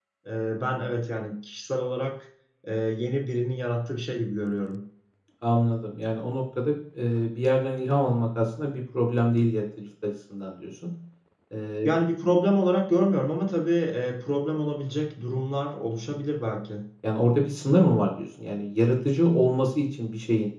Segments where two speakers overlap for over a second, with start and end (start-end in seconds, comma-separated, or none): none